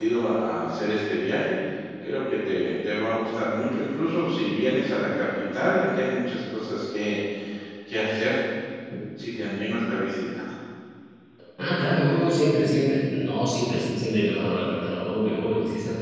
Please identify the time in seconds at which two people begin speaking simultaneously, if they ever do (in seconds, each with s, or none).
none